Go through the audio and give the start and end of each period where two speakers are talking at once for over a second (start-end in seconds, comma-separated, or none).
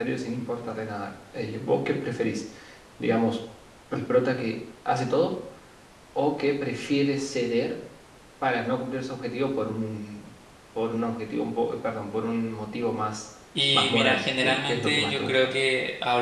13.7-15.5